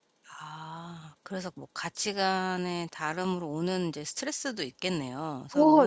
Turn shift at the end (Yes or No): Yes